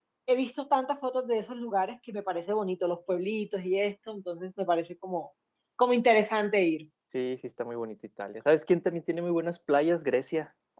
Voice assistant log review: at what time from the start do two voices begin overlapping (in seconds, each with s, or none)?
none